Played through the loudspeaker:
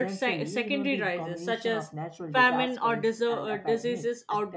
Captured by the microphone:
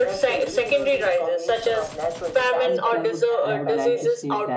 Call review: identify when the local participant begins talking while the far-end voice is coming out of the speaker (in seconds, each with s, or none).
2.6 s